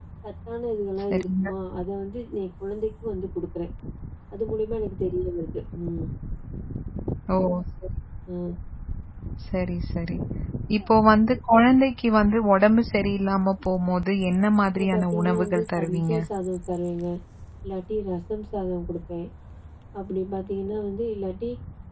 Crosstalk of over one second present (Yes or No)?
Yes